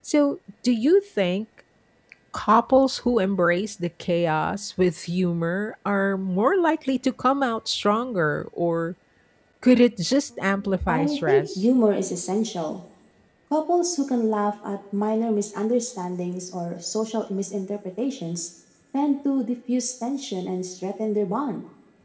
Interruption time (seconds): 10.4 s

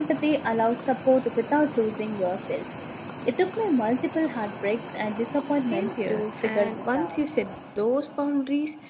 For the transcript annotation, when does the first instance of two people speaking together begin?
5.7 s

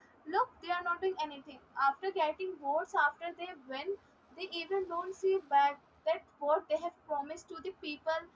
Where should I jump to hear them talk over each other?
none

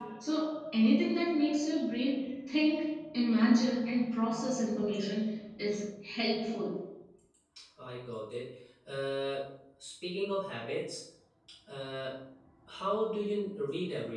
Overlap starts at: none

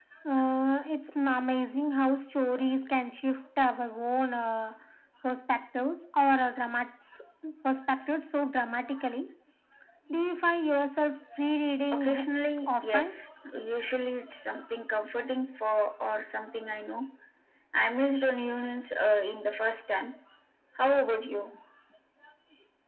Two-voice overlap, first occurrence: 11.9 s

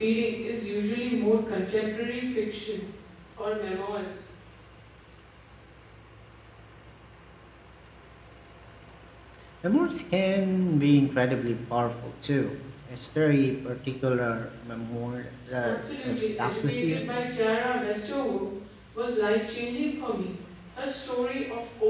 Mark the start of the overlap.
15.6 s

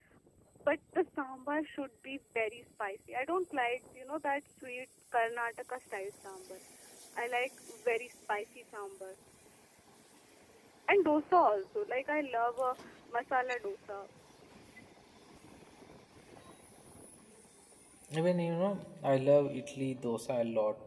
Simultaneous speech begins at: none

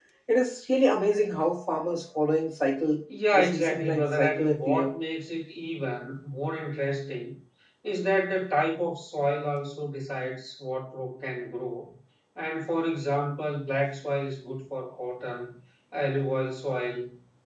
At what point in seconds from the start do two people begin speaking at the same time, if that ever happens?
3.3 s

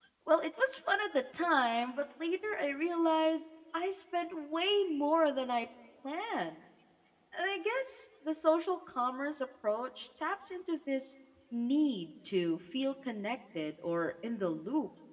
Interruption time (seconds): none

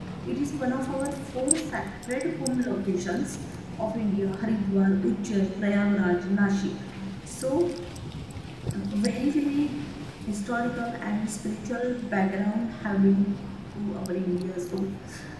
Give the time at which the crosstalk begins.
none

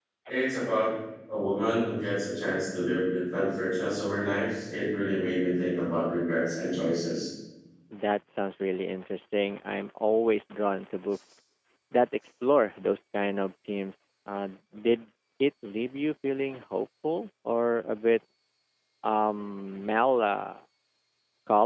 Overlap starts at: none

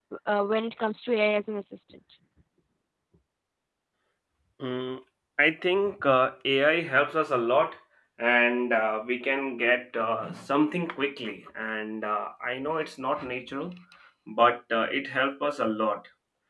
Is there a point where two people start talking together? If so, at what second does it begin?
none

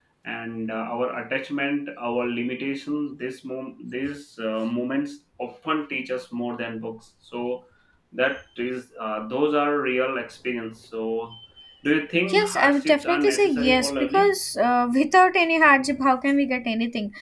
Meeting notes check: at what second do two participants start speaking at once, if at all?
12.3 s

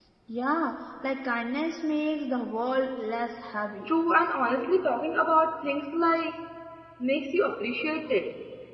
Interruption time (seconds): none

